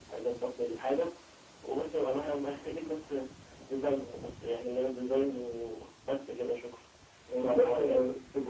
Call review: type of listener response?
taking over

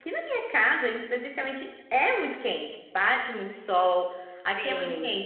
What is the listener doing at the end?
listening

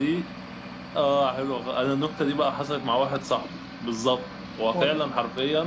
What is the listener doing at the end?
listening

